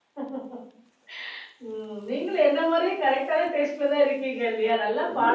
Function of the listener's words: taking over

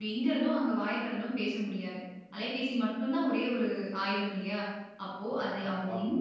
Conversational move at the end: listening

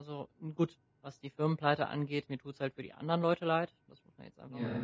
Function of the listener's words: listening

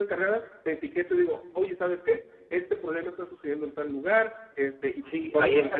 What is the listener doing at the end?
taking over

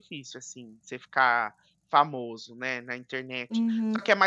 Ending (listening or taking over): taking over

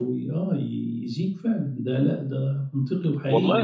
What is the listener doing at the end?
taking over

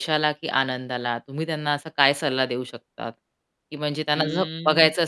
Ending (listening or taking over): listening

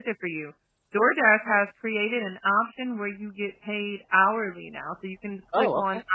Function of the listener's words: listening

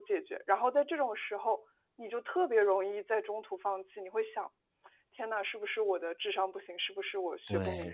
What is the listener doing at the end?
taking over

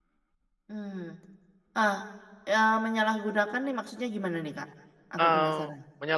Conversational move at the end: taking over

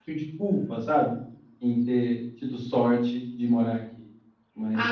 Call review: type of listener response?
taking over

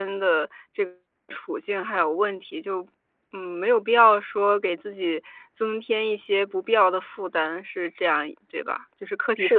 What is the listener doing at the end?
taking over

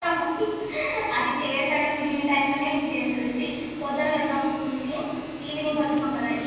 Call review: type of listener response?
listening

